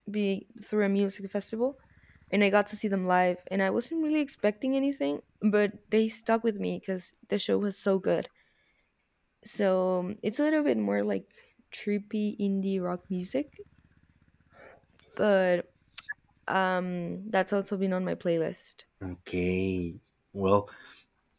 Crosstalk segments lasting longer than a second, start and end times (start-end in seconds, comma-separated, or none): none